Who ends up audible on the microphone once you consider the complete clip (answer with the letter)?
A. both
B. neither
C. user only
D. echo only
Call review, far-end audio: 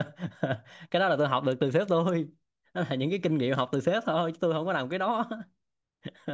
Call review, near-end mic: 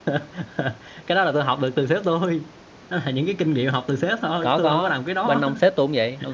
A